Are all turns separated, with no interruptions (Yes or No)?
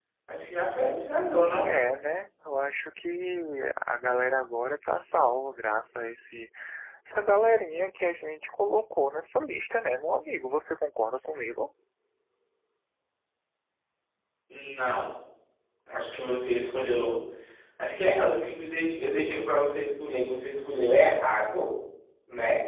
Yes